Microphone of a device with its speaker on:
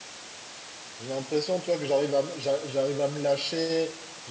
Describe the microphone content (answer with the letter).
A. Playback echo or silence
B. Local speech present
B